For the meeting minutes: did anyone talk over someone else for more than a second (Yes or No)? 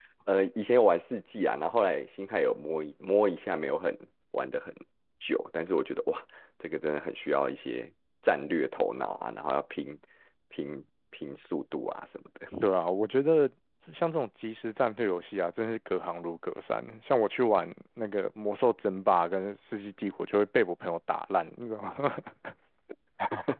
No